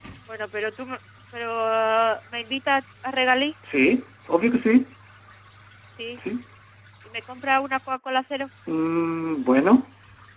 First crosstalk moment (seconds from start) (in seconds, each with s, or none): none